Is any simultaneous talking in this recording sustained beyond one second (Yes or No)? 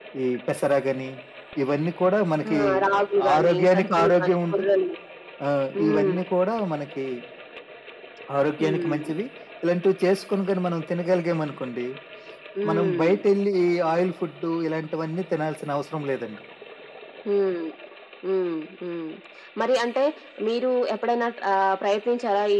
Yes